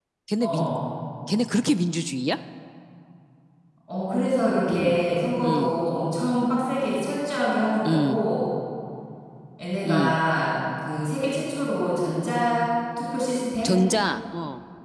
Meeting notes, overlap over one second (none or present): none